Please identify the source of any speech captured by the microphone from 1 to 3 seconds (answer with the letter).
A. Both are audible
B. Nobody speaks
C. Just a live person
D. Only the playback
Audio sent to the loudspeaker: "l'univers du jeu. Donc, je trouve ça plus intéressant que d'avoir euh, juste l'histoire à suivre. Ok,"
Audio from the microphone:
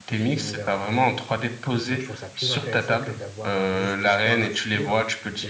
A